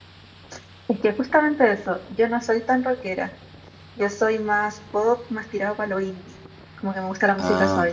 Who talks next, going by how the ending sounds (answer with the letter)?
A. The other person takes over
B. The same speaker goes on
B